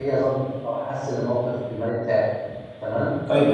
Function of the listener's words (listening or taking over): taking over